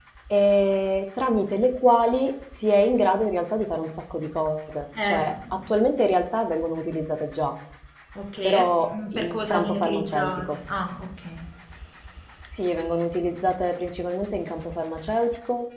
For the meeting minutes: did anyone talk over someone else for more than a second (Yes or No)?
Yes